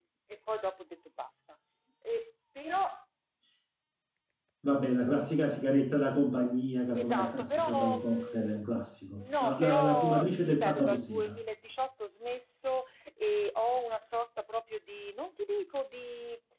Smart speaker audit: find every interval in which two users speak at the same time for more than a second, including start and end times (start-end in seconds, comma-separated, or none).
7.0-8.6, 9.2-11.4